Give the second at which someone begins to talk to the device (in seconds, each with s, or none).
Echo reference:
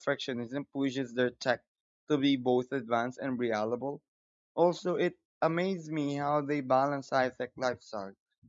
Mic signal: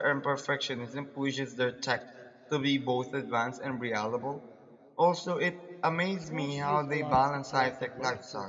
6.1 s